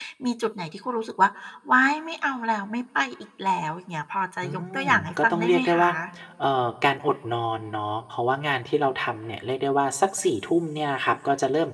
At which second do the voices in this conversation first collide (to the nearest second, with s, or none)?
4 s